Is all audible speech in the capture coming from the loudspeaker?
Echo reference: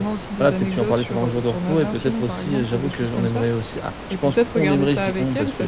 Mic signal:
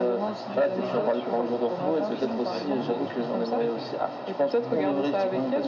No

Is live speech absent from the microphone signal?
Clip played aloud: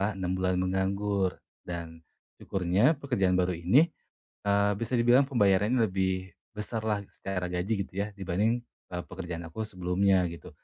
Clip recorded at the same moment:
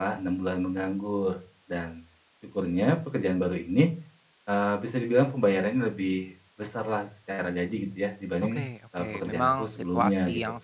No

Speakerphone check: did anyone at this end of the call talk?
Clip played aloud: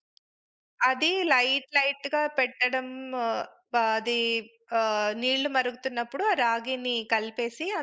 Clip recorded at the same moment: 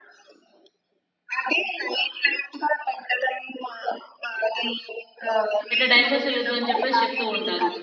Yes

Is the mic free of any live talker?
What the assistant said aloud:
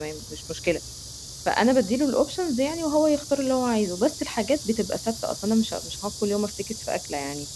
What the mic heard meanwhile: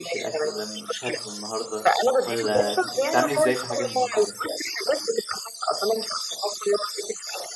No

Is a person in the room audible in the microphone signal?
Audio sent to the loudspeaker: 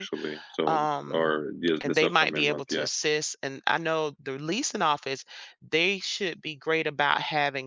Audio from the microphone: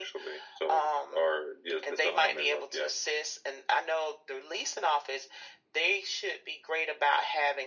Yes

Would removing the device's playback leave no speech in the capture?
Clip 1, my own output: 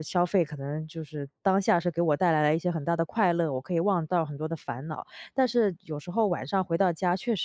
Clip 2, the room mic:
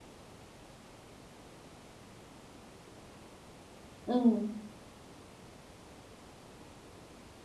No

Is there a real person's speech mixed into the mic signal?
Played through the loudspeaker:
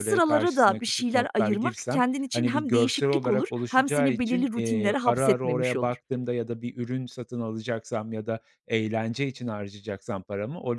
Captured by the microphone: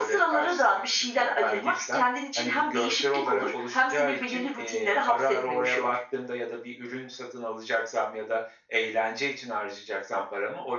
No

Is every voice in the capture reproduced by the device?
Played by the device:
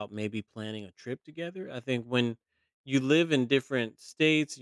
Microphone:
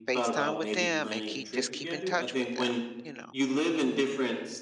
No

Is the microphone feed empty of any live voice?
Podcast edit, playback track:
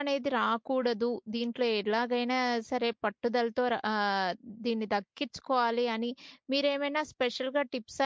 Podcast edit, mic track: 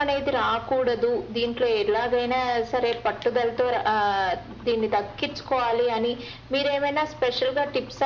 Yes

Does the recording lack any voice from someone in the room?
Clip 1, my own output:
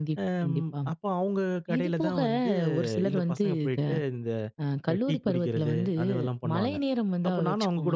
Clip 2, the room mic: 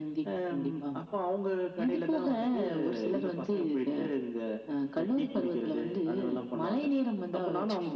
Yes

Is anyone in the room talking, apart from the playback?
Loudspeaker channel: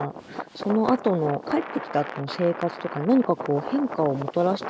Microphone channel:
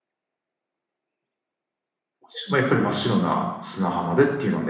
Yes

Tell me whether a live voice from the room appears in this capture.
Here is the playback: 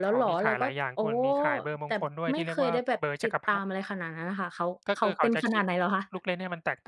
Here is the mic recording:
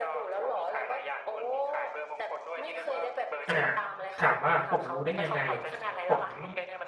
Yes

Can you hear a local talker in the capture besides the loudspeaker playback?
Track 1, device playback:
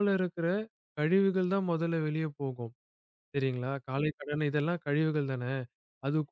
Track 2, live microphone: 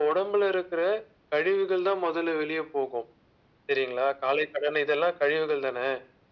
No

